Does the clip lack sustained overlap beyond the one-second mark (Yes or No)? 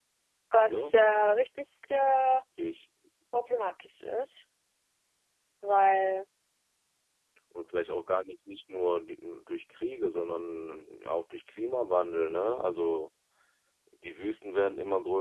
Yes